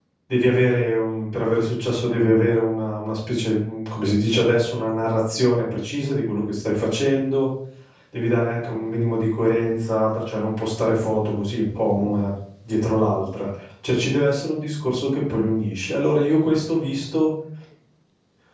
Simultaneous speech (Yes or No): No